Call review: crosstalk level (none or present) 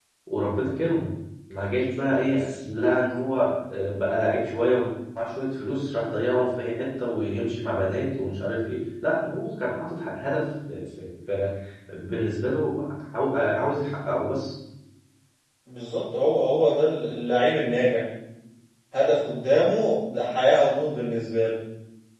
none